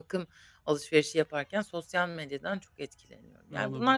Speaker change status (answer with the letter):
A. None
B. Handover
A